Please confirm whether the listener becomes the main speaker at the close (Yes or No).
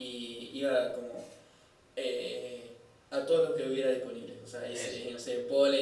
No